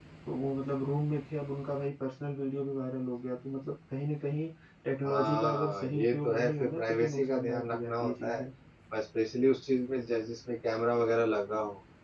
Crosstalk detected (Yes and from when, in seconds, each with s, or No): Yes, from 5.0 s